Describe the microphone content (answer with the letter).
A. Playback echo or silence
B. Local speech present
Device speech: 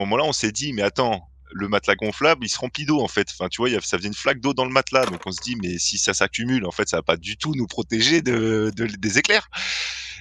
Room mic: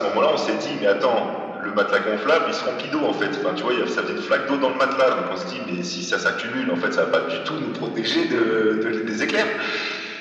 A